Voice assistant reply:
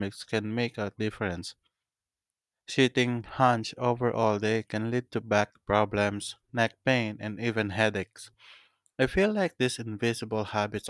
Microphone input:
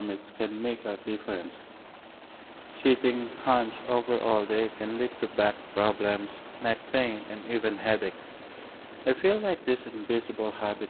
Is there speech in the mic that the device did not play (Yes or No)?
No